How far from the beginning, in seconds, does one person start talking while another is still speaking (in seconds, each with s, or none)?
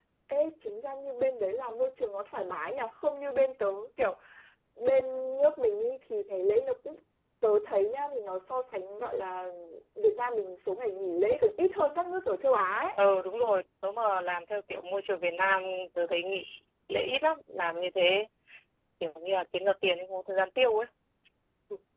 none